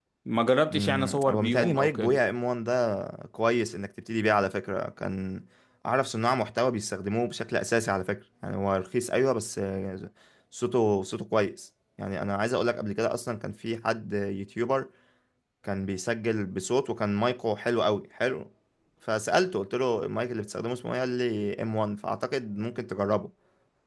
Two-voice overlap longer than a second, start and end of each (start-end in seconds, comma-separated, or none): 0.7-2.2